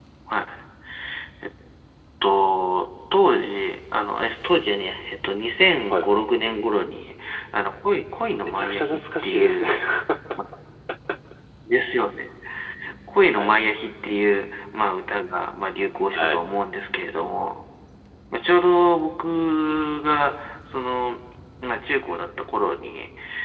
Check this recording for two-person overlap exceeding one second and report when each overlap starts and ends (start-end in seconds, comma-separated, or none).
8.3-9.7